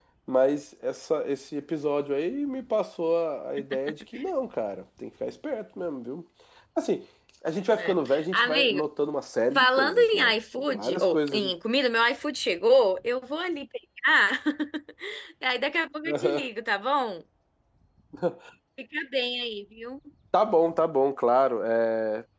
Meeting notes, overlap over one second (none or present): present